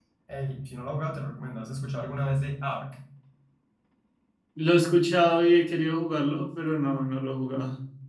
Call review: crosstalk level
none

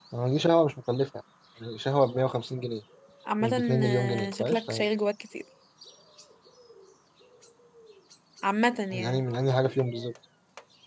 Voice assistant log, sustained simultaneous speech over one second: present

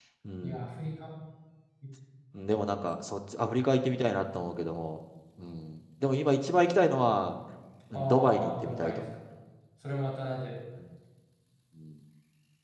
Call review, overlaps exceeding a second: present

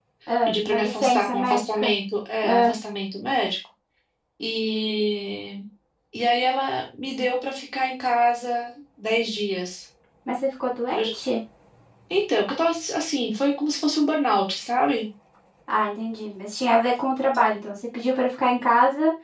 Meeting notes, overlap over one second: present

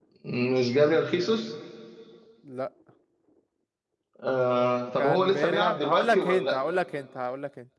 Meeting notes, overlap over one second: present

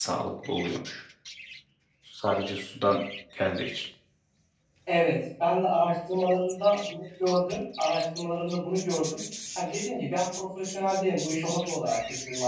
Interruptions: none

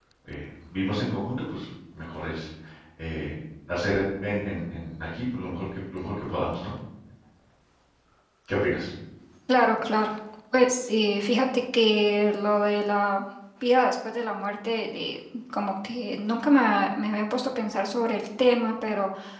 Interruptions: none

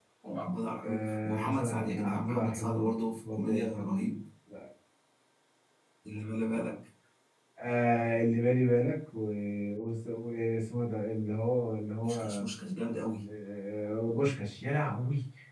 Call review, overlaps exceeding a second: present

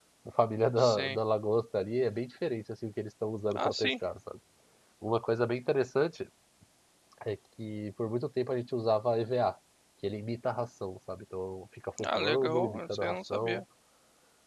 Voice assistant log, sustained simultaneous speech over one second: present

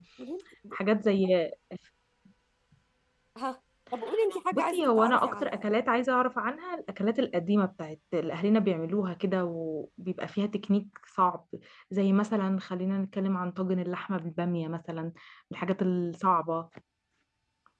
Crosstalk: present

